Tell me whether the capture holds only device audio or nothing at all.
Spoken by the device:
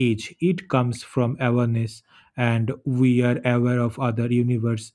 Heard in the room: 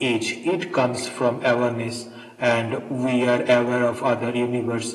Yes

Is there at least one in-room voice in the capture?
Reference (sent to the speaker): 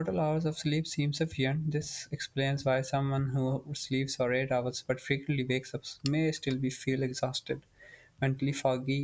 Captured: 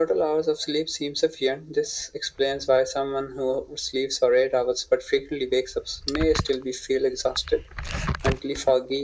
No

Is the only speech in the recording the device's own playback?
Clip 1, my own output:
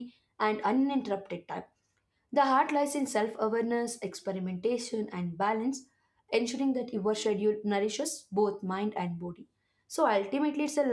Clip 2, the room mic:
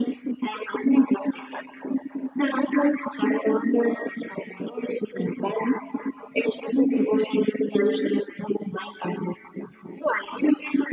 Yes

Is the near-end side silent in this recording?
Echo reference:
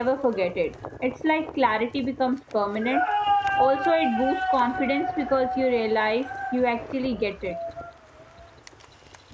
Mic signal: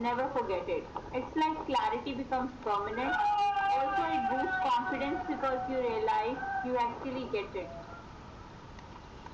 Yes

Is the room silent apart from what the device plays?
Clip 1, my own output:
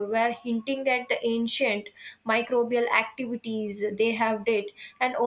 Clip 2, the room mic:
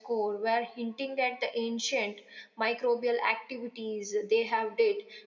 Yes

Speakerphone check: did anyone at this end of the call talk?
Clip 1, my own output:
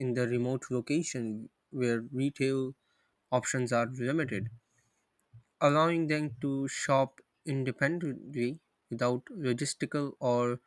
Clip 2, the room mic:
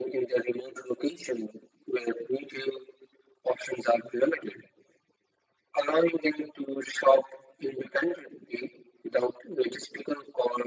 No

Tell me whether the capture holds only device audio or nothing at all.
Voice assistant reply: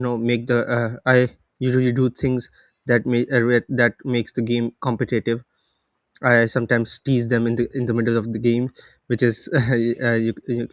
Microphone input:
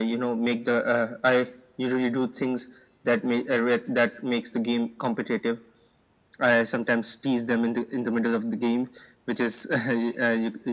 Yes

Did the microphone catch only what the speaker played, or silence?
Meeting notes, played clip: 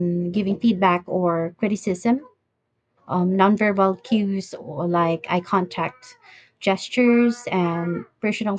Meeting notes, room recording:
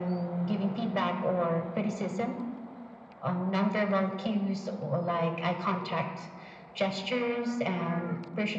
Yes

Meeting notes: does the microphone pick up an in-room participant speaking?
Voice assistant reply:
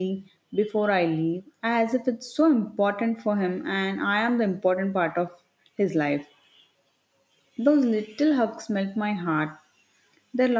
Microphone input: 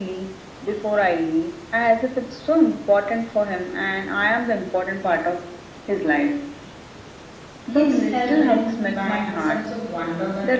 Yes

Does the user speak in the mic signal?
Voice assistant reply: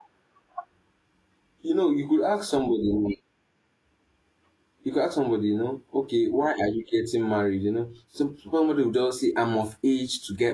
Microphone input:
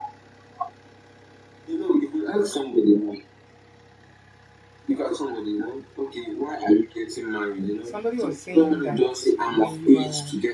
Yes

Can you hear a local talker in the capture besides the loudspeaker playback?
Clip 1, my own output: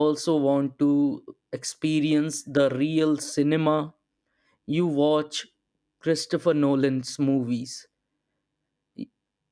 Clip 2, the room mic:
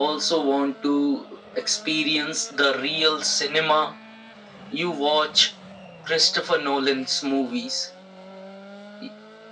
No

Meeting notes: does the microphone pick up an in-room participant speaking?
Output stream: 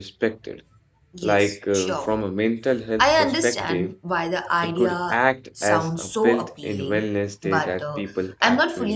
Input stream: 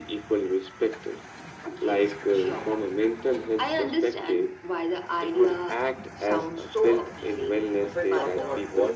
Yes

